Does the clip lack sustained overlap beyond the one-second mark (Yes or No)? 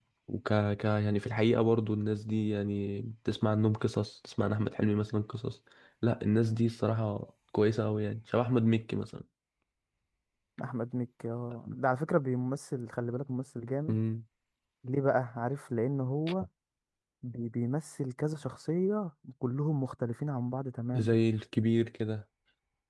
Yes